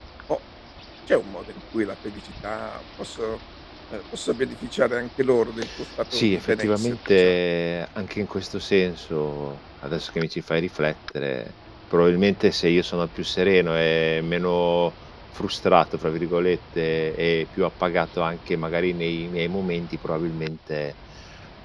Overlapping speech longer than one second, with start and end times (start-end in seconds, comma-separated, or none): 6.1-7.3